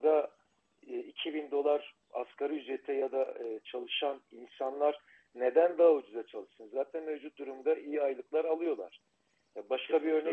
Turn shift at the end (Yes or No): No